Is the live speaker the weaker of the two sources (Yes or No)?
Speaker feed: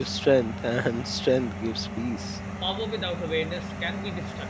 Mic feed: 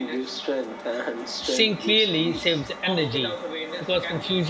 No